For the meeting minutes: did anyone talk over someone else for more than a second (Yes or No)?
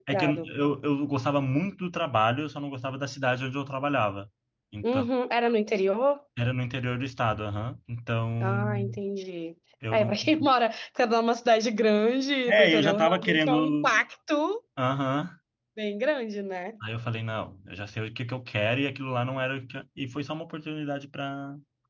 Yes